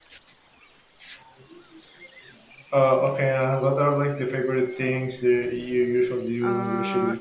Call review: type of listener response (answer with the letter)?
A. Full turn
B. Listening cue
A